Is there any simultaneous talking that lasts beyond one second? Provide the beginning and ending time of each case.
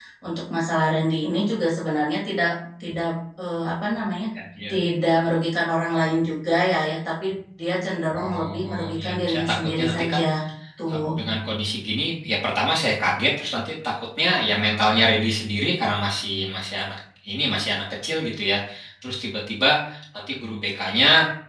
8.2-10.2

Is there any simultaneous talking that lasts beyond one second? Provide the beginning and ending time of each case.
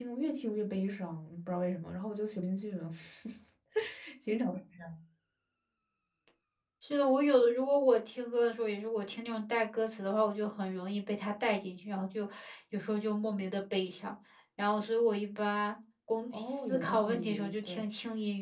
16.3-17.8

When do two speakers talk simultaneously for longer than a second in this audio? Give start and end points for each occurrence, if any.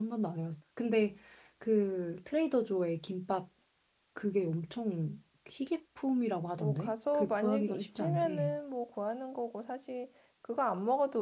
6.6-8.5

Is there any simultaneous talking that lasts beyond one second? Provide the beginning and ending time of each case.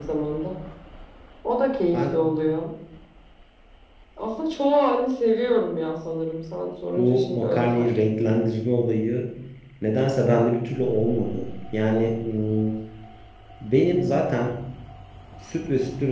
7.0-8.3

